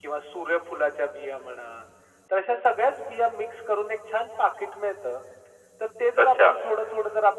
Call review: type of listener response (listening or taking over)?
listening